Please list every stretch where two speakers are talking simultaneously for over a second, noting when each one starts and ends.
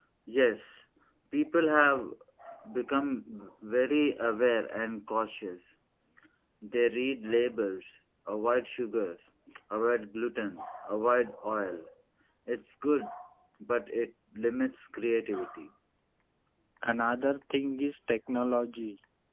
none

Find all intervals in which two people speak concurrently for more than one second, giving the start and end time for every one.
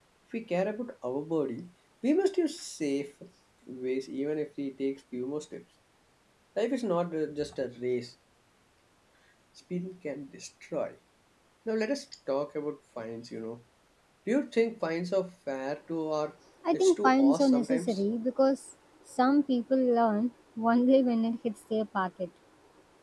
16.7-18.0

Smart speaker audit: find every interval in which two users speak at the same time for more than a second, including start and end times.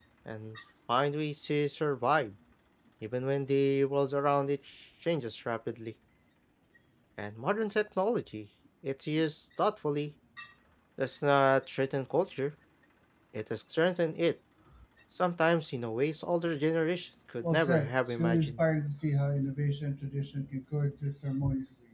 17.4-18.6

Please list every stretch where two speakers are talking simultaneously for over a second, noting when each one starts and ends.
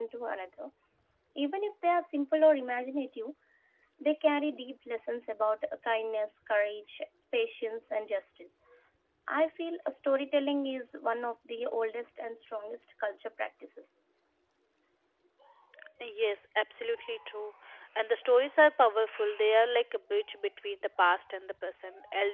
none

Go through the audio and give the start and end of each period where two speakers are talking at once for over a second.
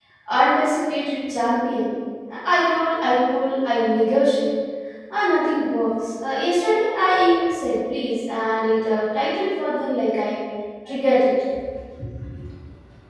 none

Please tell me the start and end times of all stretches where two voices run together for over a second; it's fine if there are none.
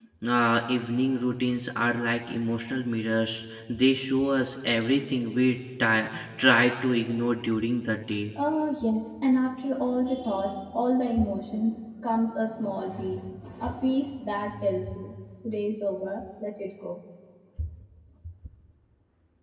none

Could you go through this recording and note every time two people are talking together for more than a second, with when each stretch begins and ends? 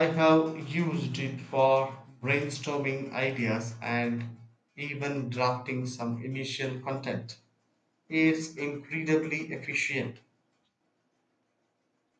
none

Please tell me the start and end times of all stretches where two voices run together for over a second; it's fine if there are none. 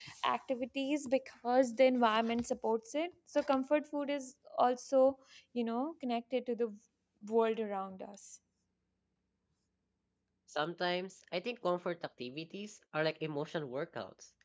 none

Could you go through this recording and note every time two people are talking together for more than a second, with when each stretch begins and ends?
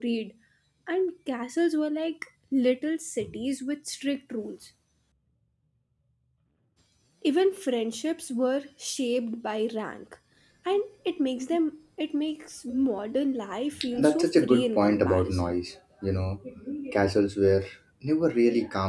14.0-15.5

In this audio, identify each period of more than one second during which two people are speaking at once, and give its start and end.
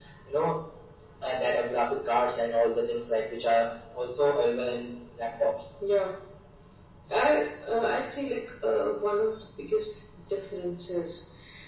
none

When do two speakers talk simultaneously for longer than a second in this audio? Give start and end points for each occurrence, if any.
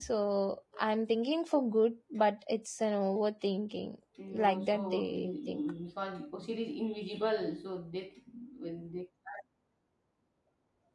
4.3-5.6

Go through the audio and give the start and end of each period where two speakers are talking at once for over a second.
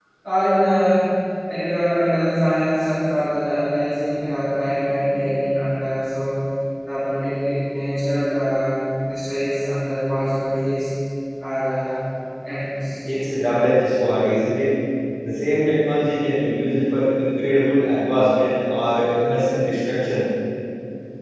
none

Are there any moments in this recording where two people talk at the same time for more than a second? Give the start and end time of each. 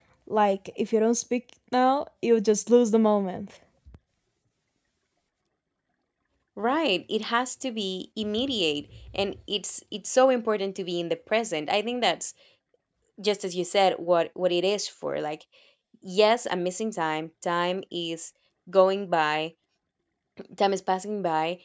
none

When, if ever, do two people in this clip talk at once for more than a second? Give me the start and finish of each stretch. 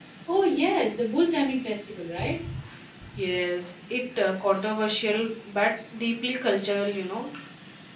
none

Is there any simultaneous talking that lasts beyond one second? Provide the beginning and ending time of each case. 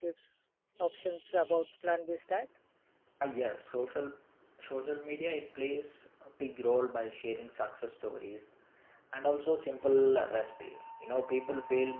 none

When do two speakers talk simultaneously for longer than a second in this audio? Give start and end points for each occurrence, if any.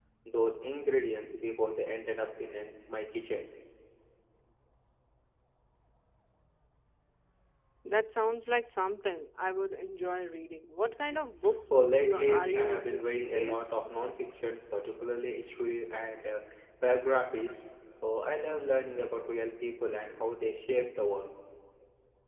11.7-13.6

